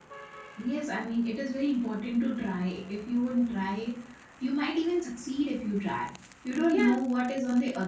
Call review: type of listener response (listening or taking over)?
listening